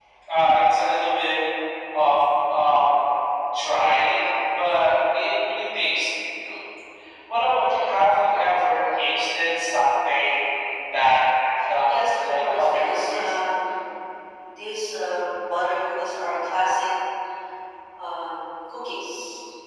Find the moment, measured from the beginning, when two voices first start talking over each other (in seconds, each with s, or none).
11.9 s